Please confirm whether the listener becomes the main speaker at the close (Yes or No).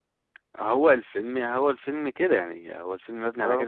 No